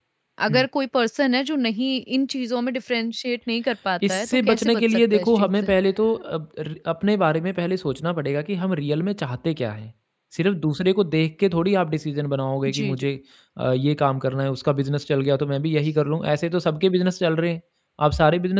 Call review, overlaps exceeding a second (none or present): present